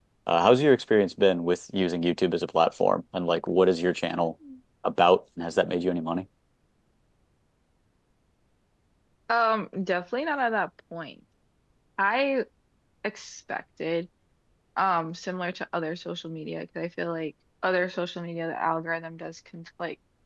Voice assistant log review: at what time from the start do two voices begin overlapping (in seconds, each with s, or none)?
none